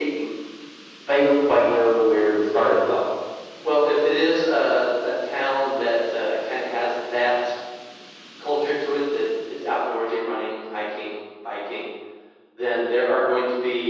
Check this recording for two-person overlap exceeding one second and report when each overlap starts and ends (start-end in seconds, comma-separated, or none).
none